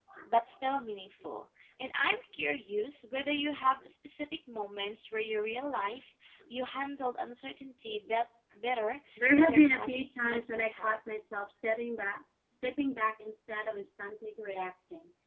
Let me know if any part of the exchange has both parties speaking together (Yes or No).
Yes